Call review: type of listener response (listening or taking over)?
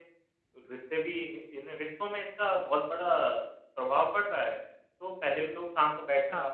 listening